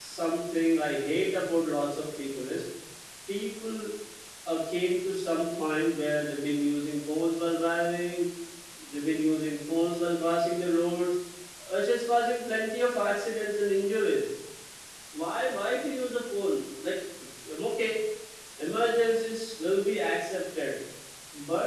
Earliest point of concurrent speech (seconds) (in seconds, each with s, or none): none